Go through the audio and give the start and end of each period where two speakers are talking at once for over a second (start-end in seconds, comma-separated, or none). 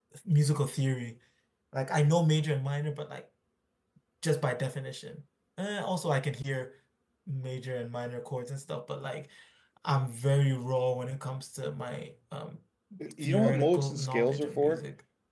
13.2-14.8